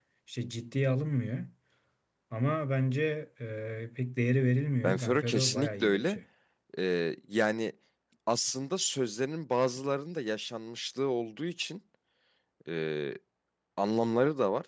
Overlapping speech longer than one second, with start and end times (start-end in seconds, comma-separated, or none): 4.8-6.2